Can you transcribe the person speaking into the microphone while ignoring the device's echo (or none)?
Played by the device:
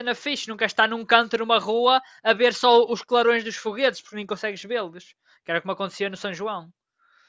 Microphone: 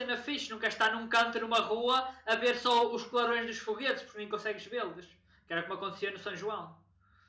none